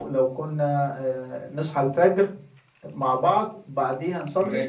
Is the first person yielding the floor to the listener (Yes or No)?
No